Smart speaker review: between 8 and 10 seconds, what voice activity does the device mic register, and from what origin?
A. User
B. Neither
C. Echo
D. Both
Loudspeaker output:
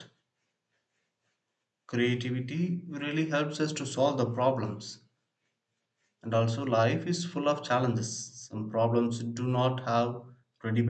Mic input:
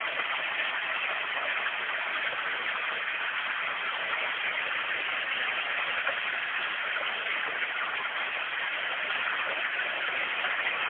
B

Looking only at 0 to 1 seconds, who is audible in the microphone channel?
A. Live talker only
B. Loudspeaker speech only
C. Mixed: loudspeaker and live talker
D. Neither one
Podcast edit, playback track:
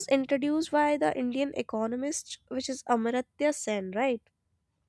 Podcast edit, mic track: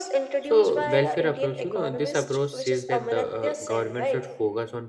C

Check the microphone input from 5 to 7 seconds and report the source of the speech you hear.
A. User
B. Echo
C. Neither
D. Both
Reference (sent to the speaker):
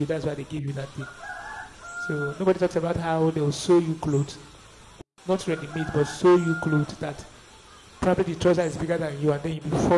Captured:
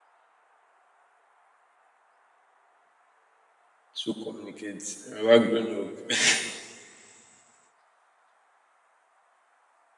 A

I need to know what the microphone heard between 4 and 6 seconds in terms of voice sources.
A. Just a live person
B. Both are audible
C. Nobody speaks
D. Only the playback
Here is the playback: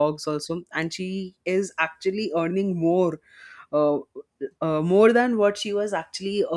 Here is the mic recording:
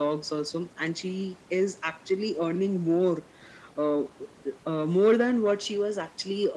D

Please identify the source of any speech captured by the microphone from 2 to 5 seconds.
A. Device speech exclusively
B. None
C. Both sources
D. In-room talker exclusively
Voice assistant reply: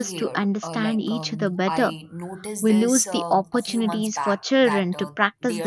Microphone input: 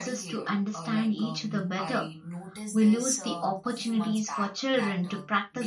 A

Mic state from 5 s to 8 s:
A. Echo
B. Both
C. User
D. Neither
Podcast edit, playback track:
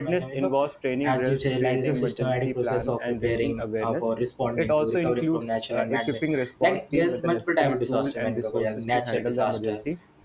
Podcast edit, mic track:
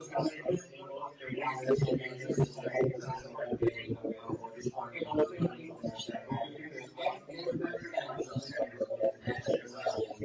A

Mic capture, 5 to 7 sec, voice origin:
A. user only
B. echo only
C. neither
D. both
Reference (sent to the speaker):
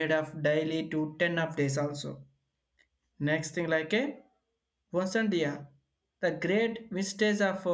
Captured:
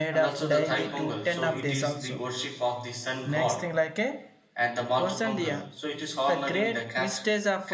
D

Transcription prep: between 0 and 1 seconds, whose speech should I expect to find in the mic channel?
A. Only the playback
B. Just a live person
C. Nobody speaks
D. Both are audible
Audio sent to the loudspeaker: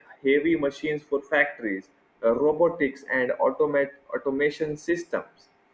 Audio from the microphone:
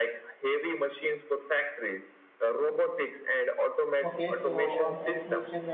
A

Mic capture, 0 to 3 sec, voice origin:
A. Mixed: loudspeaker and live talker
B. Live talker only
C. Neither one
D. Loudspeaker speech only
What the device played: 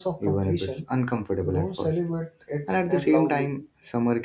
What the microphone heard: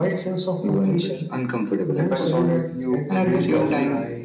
A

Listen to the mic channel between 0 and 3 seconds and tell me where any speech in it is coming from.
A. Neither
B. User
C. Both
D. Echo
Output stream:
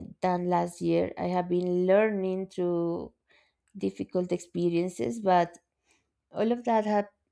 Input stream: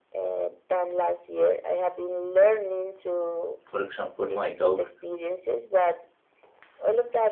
D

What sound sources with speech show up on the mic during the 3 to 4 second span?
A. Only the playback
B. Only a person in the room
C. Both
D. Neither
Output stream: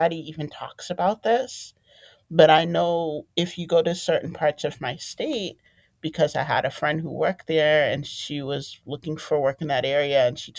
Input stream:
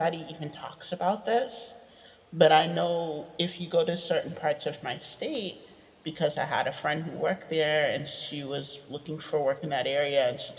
A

